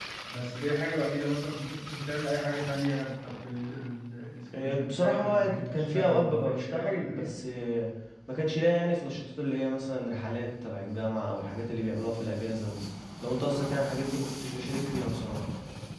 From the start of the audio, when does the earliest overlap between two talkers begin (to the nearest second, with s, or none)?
5 s